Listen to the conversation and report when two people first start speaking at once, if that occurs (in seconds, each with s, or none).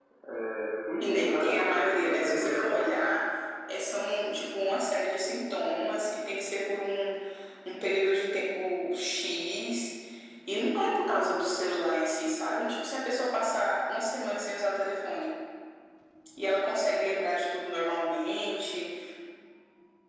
1.0 s